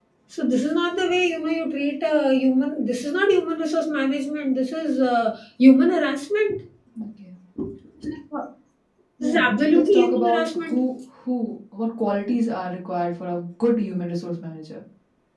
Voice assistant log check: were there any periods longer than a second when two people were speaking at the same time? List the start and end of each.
9.2-10.8

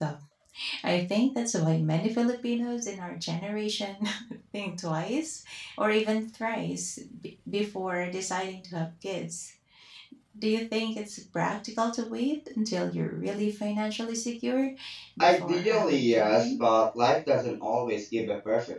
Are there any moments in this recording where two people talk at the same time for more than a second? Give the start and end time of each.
15.2-16.6

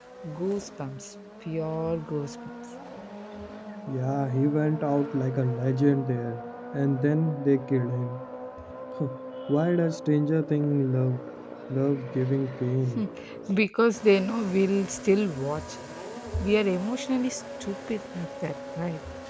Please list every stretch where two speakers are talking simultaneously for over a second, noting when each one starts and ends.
none

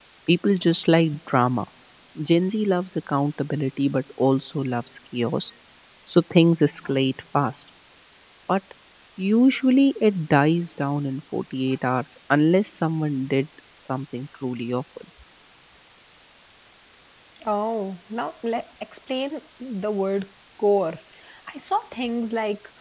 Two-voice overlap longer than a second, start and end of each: none

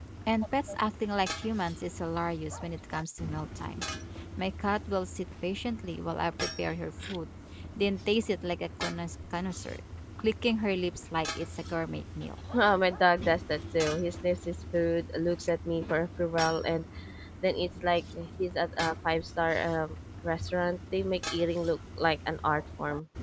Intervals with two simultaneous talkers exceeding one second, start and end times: none

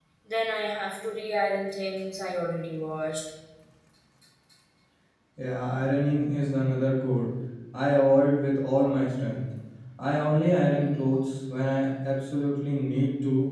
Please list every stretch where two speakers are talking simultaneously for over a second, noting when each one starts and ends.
none

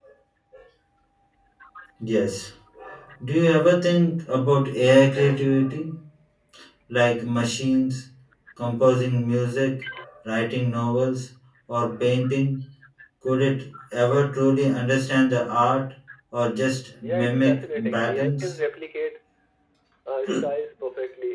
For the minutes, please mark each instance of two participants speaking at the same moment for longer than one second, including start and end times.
17.0-18.5

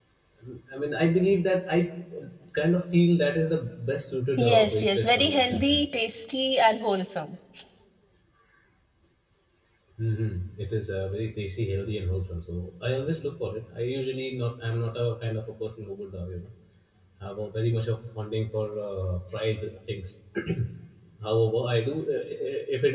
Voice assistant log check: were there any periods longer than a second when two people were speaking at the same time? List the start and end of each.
4.4-5.9

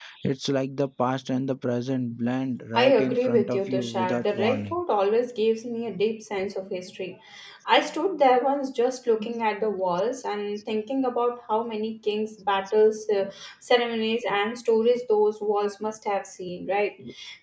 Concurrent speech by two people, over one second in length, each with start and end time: 2.7-4.8

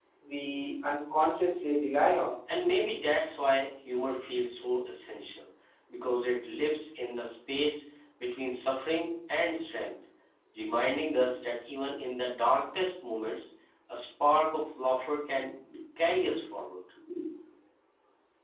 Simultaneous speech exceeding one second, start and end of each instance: none

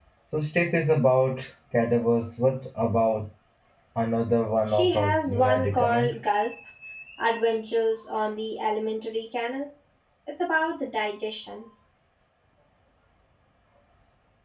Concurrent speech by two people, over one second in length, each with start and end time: 4.7-6.2

